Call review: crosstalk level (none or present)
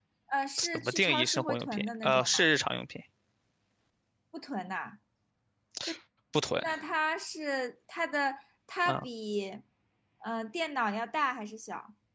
present